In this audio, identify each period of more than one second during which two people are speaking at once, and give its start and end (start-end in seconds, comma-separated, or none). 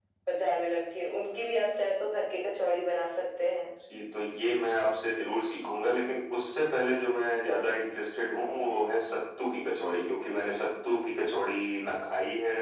none